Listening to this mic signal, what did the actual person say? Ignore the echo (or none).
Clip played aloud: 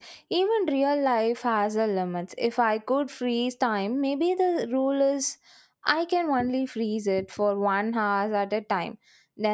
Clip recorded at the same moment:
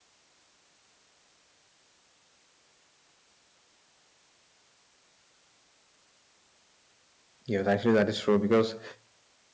Yes, actually, that is true because